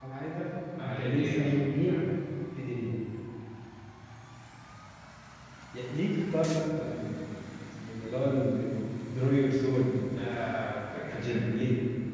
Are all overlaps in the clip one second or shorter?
No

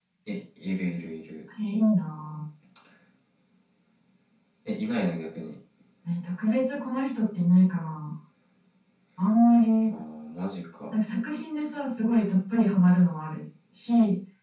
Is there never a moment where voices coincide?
Yes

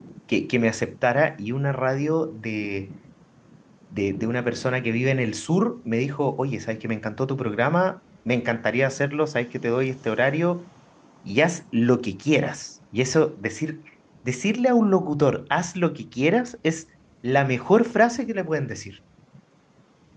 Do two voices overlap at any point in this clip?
No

